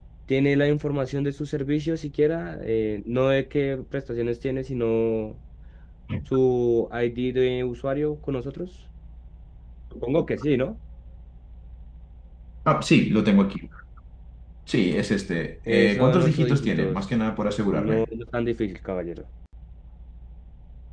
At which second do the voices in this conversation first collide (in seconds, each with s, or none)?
15.7 s